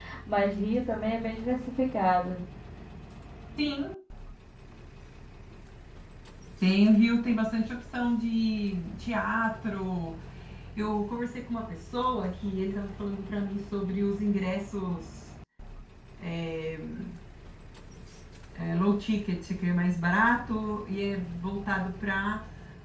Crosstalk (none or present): none